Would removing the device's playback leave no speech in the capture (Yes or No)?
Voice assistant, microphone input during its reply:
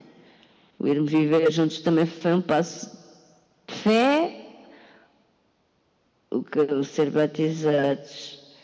Yes